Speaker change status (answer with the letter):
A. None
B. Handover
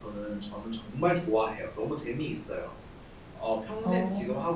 A